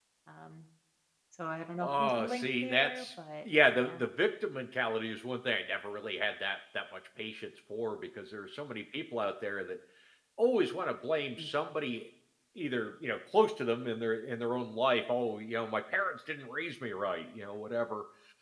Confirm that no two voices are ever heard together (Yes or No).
No